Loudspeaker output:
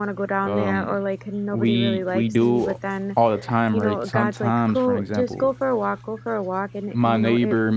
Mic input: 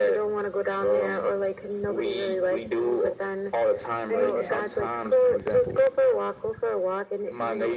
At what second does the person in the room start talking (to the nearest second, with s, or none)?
4 s